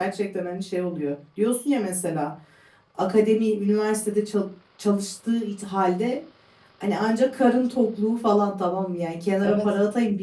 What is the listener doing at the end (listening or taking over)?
listening